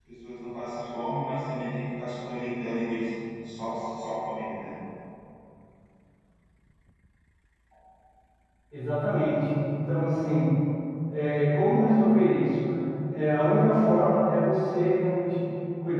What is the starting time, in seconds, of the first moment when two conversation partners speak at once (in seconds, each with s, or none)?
none